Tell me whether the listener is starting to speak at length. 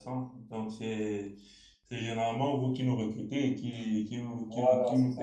Yes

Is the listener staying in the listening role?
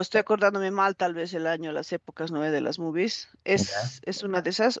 Yes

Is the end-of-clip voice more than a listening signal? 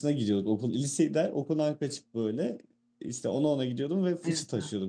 No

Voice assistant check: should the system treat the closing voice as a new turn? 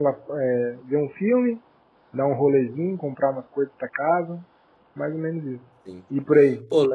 Yes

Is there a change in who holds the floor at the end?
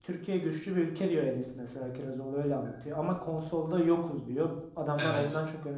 No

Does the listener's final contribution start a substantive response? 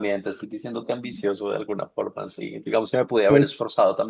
No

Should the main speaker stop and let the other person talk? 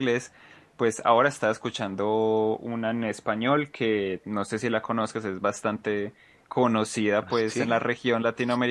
No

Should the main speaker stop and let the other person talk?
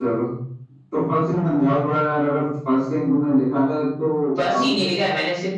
Yes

